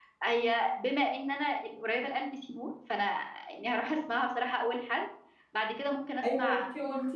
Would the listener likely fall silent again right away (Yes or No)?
No